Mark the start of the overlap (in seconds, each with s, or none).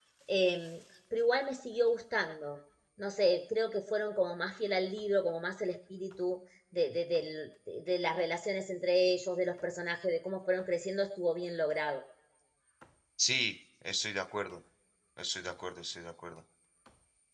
none